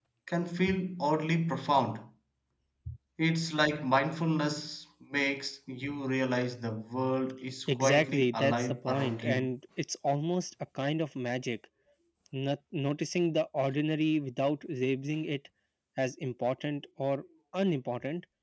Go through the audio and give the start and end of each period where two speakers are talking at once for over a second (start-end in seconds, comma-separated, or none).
7.8-9.5